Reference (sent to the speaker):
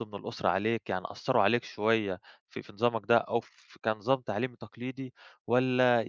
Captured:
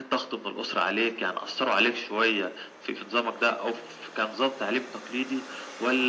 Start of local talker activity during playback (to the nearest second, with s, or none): none